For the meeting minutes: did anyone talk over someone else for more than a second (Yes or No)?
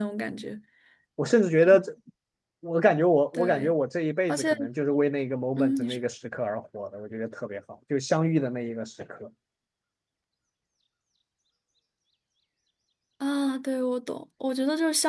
No